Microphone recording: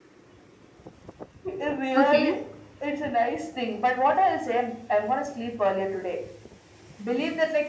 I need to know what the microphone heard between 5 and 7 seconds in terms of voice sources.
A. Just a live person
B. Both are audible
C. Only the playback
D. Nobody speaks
C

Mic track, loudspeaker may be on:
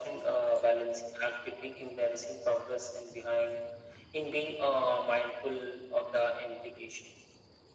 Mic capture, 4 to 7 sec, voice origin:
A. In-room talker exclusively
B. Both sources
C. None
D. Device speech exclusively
D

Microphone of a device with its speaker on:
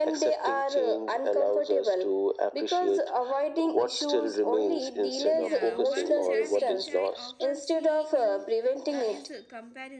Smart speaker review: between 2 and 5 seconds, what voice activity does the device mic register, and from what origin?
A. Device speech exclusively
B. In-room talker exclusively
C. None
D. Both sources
A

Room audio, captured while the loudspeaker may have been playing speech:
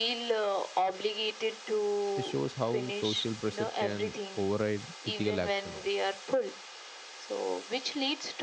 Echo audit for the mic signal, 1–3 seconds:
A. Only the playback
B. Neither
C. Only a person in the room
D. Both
D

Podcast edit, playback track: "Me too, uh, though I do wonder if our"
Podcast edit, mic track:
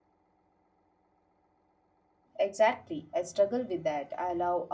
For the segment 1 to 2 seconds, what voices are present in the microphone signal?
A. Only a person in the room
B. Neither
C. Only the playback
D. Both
B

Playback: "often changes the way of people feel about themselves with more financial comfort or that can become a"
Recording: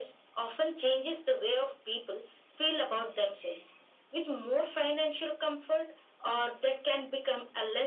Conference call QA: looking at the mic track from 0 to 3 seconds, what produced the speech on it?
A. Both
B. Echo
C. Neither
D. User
B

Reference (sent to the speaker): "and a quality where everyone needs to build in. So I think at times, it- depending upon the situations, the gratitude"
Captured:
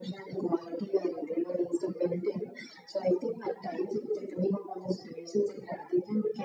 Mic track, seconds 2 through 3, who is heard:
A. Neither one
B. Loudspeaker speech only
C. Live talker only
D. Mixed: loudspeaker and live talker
B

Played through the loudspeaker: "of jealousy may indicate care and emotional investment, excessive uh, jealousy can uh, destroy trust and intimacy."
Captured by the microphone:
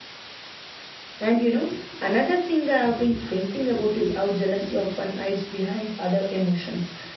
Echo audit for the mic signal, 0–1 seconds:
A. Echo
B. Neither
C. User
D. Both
B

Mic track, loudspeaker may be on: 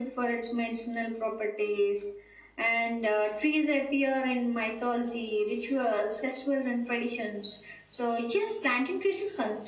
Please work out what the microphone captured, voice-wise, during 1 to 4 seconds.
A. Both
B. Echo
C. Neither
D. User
B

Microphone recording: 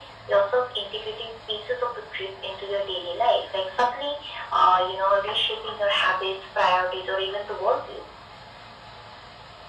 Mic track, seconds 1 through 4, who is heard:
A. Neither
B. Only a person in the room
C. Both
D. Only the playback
D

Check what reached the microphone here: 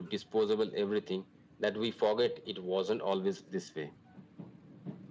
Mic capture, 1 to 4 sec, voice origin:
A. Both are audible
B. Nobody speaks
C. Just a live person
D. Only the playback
D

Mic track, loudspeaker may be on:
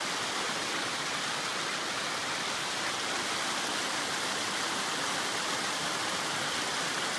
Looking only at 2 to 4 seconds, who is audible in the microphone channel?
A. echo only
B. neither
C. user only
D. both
B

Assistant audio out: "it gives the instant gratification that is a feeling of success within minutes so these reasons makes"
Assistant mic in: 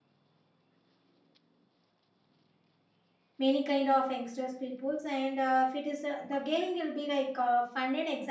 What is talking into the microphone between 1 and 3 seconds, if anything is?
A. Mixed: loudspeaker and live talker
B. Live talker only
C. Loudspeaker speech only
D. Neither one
D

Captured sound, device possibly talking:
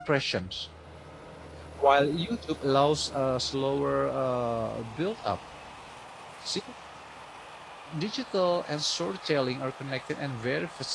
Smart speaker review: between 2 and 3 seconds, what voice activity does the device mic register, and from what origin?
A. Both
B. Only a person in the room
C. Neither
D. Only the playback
B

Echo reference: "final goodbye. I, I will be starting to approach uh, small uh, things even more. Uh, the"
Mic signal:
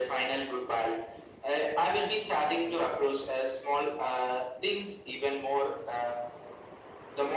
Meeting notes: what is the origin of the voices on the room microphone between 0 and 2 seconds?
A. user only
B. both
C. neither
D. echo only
D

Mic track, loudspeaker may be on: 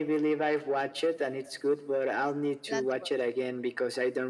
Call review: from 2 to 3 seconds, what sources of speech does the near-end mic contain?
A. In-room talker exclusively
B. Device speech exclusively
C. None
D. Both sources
D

